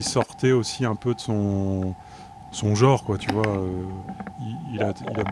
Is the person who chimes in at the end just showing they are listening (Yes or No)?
Yes